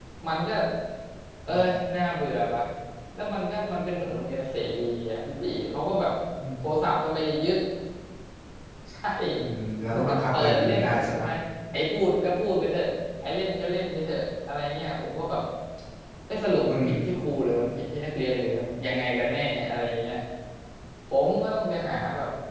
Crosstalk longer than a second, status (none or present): present